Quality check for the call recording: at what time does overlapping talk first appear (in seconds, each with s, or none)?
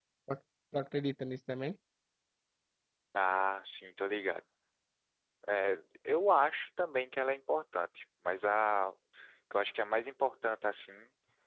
none